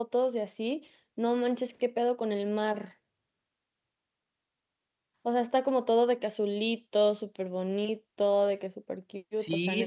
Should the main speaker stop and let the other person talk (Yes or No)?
Yes